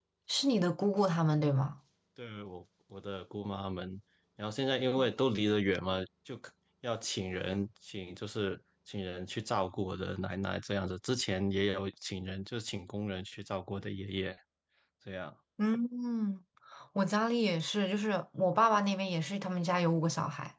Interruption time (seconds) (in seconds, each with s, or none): none